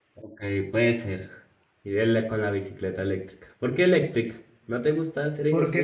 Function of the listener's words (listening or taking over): taking over